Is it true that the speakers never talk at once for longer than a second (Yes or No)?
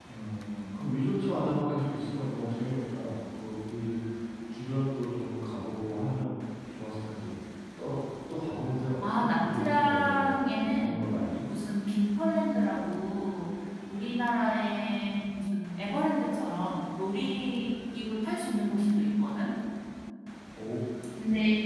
No